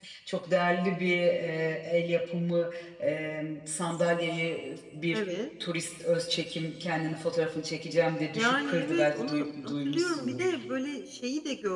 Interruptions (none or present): present